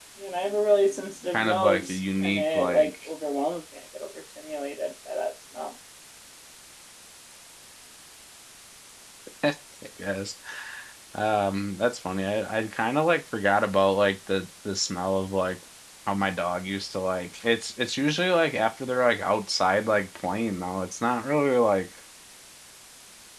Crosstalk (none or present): present